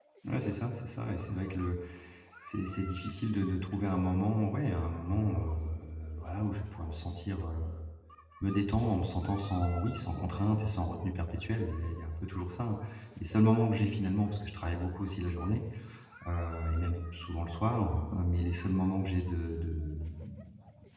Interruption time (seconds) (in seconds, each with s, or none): none